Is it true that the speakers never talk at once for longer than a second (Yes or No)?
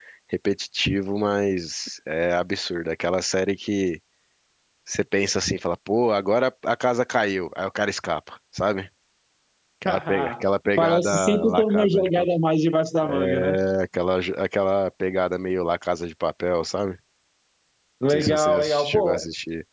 No